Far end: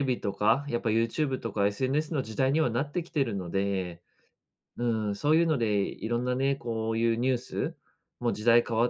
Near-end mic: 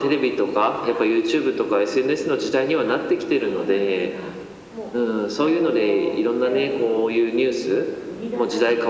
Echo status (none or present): present